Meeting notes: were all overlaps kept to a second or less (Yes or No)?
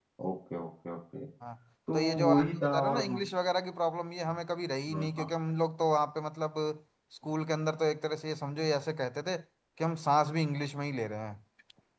No